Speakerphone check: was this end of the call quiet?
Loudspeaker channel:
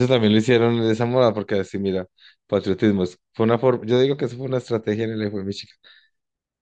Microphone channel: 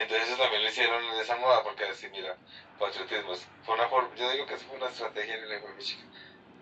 Yes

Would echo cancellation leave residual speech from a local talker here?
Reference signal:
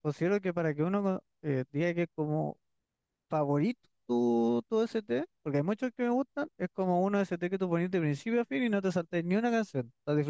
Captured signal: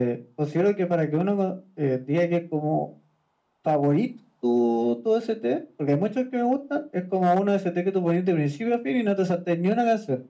No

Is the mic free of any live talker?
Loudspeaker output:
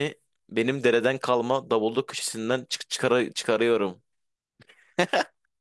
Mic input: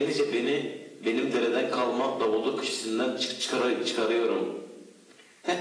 Yes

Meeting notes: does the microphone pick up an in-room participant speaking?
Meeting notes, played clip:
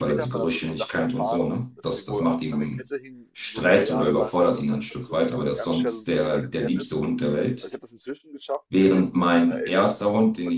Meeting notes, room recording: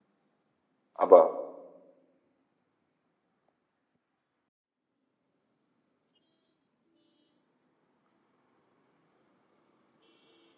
Yes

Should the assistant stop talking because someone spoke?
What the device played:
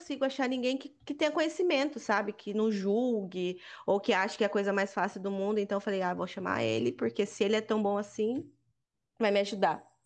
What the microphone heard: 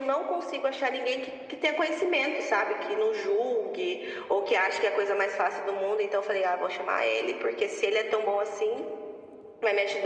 No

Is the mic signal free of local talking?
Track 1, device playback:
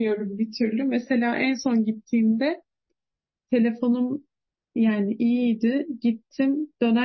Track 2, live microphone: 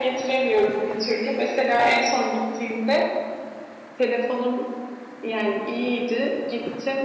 Yes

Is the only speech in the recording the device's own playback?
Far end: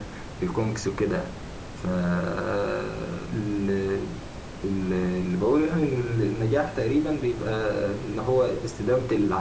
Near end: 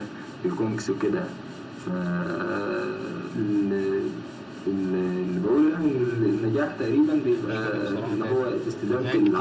No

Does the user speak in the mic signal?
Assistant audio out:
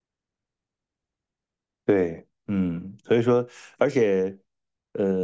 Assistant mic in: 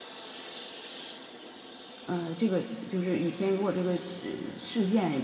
Yes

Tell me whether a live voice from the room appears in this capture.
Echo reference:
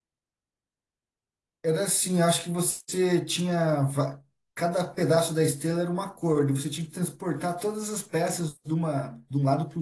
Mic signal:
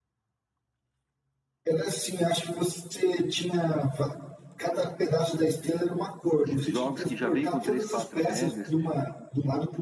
Yes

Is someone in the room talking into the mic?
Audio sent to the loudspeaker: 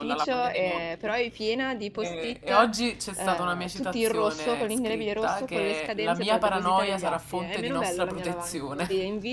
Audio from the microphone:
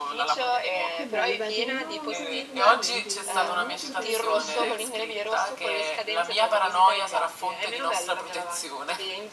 Yes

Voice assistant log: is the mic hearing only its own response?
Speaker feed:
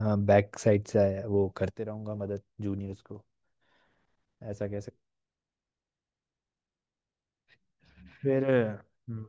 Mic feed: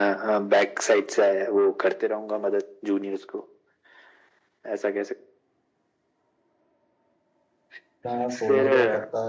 No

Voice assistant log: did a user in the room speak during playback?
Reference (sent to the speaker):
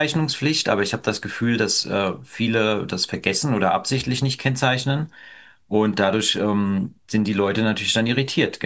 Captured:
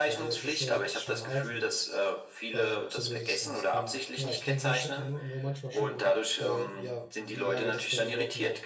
Yes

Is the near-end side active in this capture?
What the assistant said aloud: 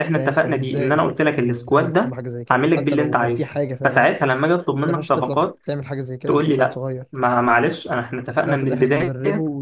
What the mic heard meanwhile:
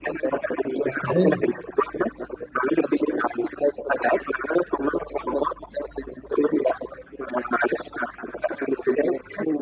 Yes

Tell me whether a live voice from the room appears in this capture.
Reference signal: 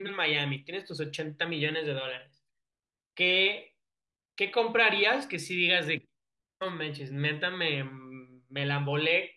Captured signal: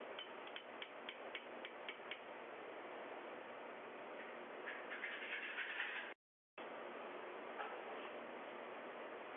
No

